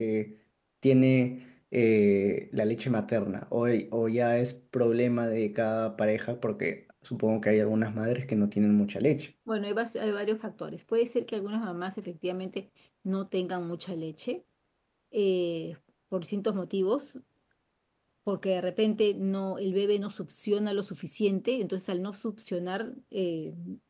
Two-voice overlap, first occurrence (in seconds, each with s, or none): none